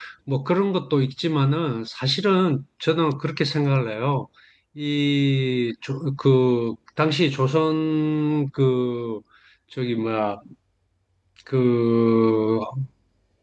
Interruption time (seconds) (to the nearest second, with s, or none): none